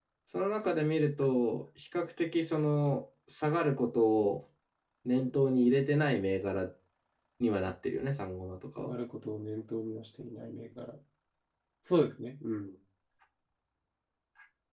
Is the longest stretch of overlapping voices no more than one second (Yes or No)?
Yes